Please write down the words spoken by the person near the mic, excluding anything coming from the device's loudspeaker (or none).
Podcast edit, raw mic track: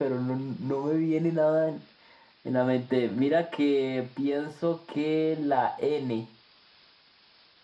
none